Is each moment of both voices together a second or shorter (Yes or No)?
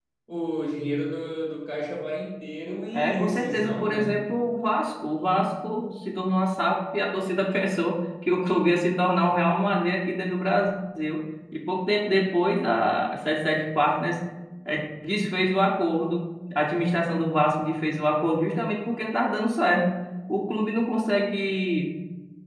No